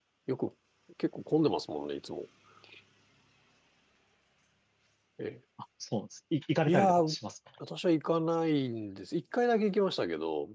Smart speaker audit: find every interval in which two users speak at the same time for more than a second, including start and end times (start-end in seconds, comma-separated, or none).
none